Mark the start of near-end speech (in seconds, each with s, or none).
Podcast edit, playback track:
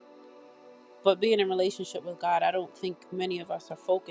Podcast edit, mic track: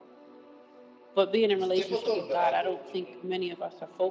1.5 s